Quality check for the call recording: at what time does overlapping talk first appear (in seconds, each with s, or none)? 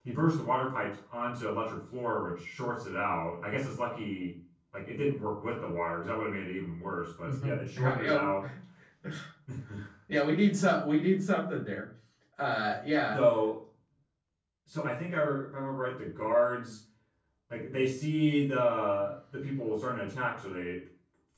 7.2 s